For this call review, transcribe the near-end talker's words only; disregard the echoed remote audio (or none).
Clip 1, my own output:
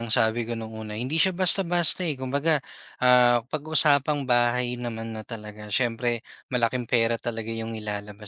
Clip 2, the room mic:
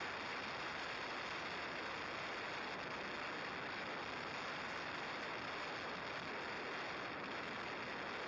none